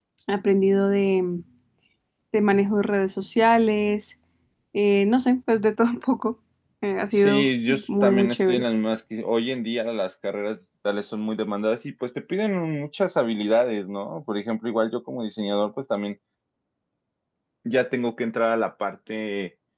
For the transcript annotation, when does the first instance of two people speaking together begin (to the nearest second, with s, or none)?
7 s